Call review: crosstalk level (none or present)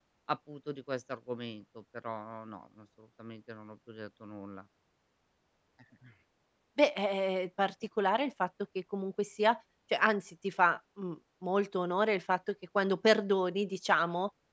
none